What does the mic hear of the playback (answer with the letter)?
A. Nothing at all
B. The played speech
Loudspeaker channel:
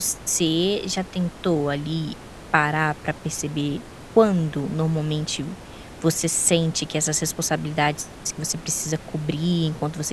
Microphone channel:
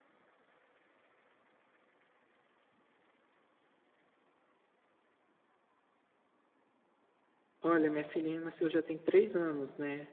A